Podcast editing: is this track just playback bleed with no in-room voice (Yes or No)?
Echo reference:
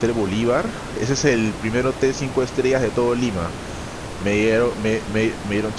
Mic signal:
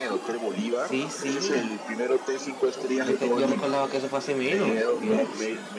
No